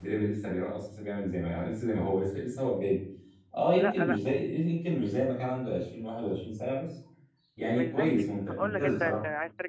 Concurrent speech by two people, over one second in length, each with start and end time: 7.7-9.2

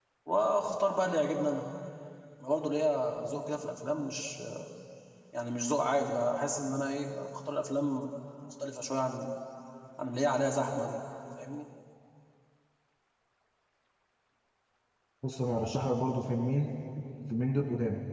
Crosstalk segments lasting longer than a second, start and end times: none

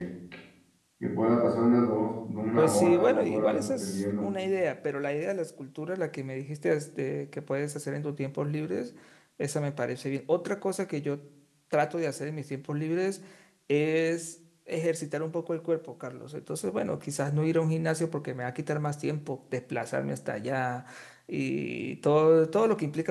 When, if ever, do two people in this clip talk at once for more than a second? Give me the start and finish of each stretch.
2.6-4.2

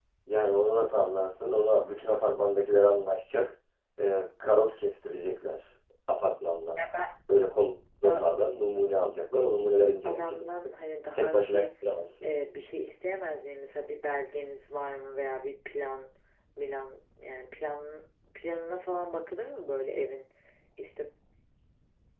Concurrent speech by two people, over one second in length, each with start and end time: none

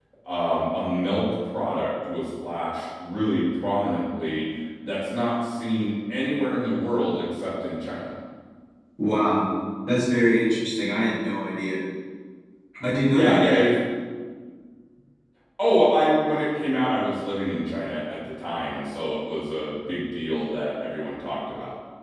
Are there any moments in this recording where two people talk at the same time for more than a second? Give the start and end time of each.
none

